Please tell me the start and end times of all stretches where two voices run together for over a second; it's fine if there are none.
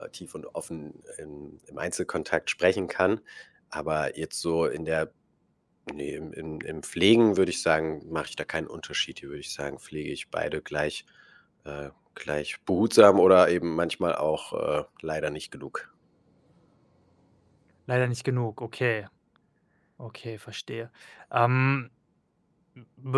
none

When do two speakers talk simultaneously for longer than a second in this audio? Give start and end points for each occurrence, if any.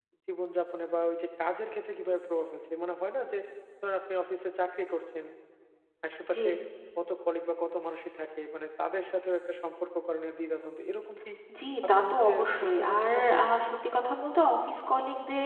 11.9-13.4

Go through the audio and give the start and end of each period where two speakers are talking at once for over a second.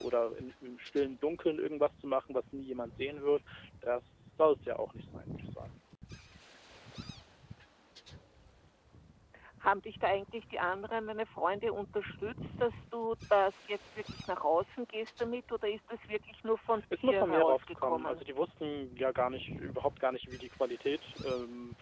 17.0-18.2

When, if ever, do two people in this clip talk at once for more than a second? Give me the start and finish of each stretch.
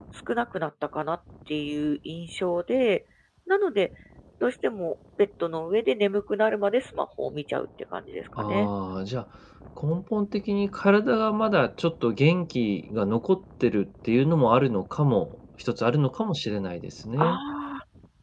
none

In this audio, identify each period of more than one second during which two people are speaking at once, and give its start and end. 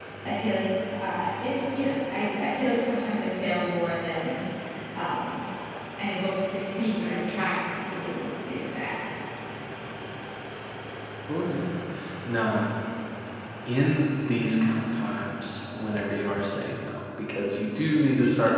none

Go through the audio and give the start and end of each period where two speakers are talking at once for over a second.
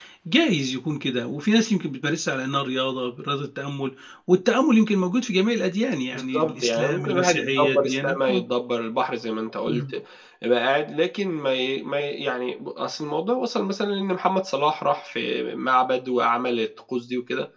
6.1-8.4

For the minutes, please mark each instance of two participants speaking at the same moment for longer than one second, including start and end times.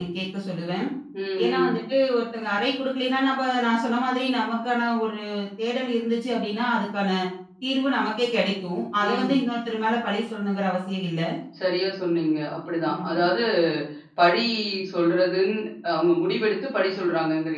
none

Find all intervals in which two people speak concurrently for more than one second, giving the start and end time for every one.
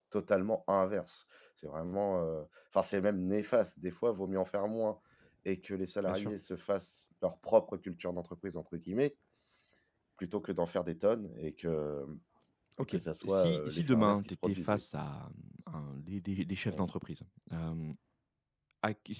12.8-14.8

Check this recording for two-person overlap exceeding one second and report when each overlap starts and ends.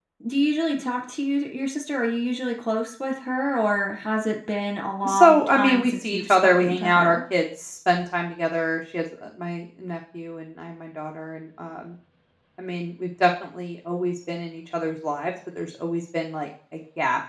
5.0-7.2

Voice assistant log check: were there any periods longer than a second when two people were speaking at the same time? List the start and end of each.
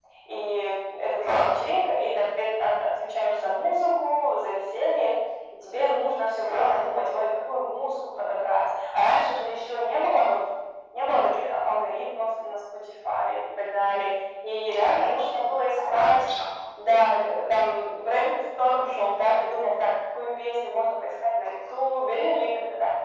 14.8-16.2

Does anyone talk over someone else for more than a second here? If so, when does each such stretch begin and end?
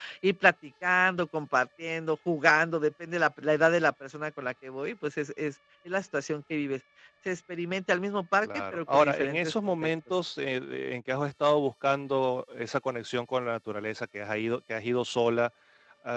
8.4-9.9

